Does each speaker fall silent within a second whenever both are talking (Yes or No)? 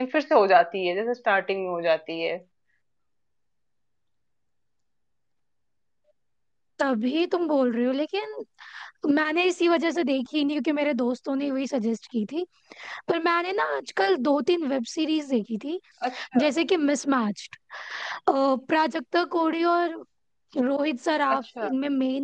Yes